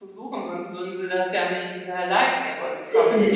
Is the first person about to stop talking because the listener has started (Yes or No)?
Yes